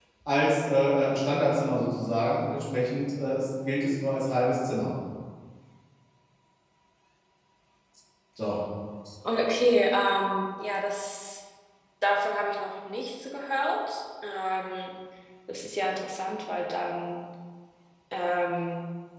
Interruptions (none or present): none